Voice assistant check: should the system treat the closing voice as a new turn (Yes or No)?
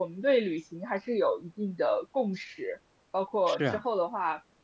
No